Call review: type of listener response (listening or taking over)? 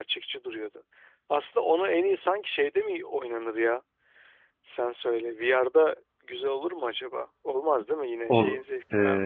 taking over